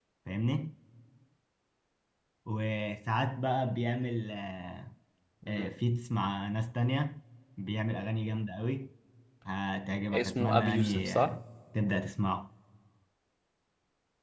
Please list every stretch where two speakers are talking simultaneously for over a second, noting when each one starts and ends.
10.1-11.3

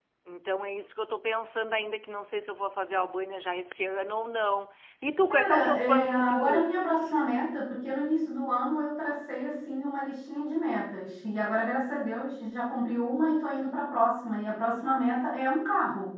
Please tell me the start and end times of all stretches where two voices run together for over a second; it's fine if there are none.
5.3-7.1

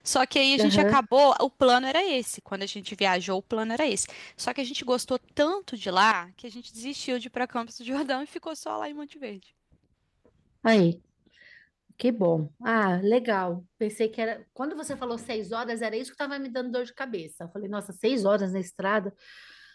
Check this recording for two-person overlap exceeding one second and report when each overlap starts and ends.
none

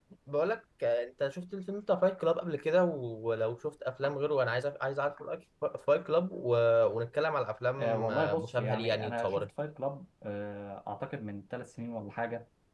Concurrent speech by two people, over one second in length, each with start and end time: 7.8-9.5

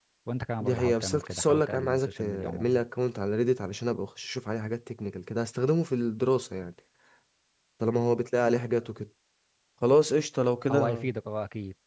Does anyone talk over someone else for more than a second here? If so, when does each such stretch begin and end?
0.6-2.8

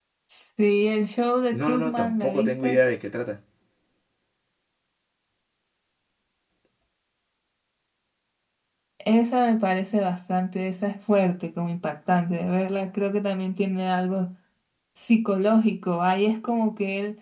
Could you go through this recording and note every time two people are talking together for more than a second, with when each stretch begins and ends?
1.5-2.8

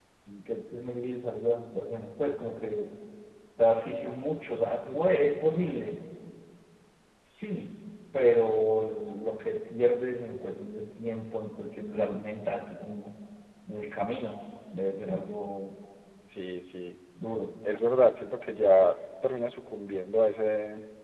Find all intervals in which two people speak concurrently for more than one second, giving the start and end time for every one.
none

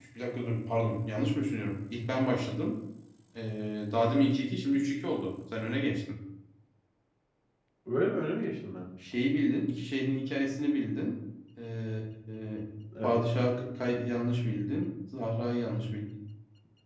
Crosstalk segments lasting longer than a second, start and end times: none

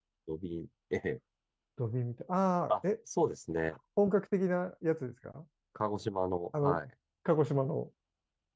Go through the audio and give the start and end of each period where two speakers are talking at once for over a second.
none

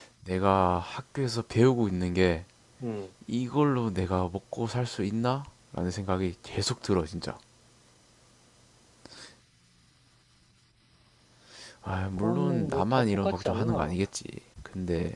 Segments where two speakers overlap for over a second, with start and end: 12.2-13.9

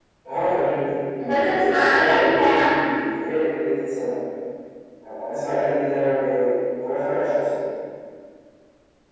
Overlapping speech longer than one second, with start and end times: 1.2-2.5

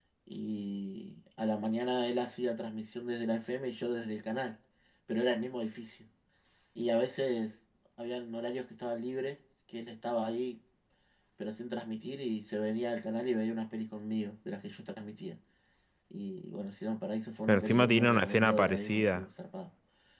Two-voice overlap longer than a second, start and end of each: 17.5-19.2

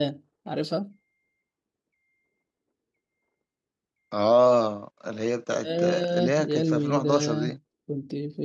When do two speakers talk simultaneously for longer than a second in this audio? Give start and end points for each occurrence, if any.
5.6-7.5

